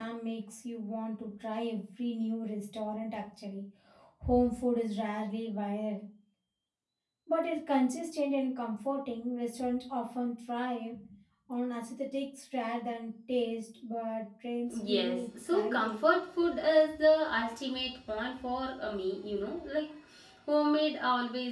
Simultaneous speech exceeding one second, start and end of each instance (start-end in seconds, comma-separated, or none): 14.7-16.0